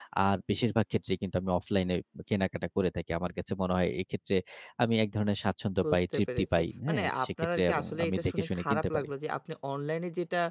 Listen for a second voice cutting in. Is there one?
Yes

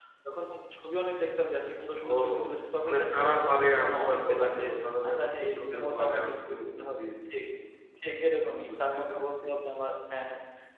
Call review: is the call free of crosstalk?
No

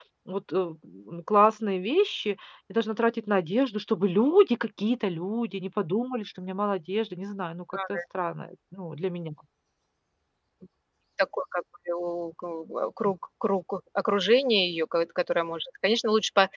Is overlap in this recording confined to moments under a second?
Yes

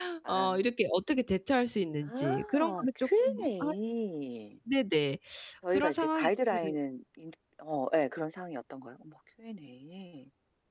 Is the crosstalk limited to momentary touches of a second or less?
No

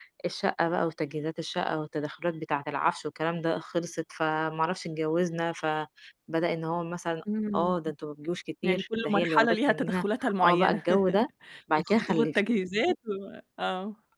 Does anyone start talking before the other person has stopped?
Yes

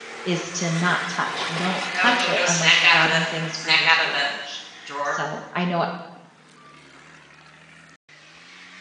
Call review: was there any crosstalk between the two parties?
Yes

